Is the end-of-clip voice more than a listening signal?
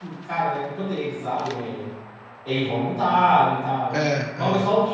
No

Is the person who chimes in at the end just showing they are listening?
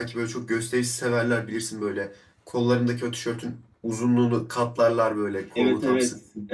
No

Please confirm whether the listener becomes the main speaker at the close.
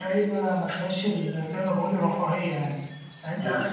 No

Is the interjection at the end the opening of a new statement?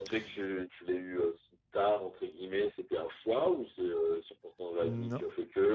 No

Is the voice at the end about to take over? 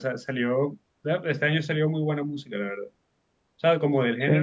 No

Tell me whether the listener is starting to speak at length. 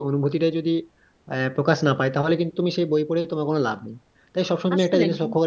No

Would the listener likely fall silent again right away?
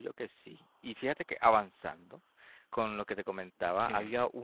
No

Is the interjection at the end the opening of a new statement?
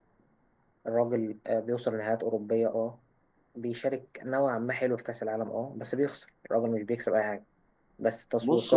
No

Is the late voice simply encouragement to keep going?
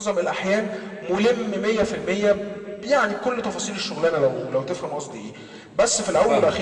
Yes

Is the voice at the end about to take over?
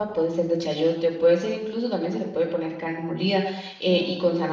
No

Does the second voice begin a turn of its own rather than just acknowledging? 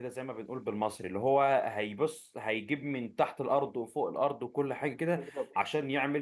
No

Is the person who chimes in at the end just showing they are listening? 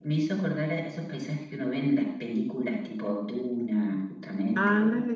No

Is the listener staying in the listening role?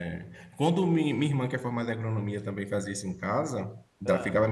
Yes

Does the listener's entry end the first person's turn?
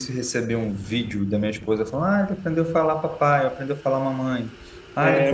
No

